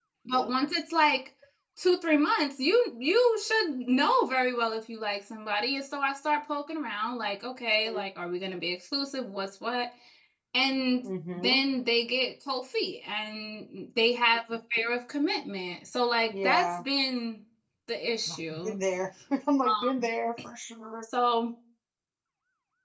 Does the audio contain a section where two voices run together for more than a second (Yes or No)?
No